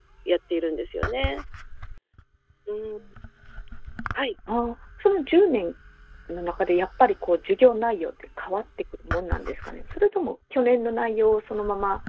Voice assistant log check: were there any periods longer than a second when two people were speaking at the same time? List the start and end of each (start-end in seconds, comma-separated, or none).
none